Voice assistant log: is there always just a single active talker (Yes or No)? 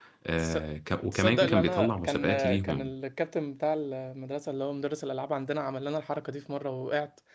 No